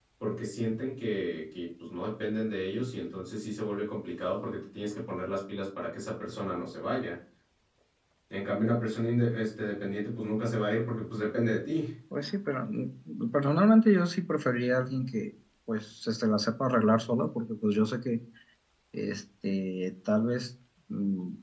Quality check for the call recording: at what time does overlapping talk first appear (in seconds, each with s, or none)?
none